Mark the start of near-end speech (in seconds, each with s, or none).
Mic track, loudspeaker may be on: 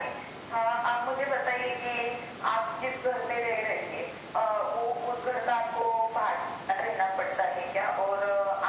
none